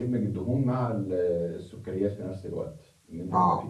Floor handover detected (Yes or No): No